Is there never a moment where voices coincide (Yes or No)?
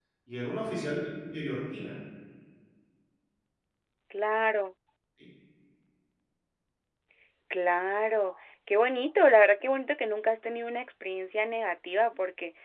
Yes